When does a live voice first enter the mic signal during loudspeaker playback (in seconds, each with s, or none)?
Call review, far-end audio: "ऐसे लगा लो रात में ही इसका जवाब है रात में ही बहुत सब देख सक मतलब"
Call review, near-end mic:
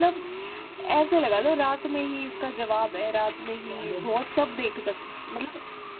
3.7 s